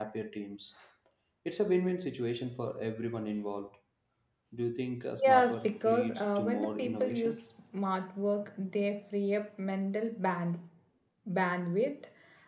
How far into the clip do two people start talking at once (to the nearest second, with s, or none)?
5 s